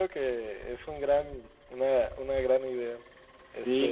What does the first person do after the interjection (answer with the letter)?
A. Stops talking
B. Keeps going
A